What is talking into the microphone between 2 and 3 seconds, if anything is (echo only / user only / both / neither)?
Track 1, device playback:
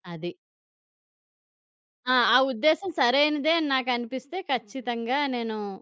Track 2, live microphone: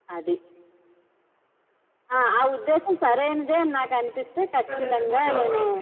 echo only